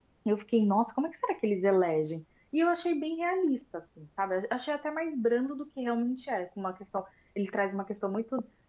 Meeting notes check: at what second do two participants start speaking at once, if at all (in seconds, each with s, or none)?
none